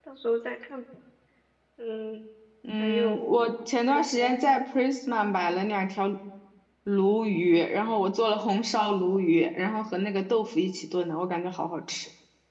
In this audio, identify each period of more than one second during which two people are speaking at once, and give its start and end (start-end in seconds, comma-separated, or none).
2.8-4.4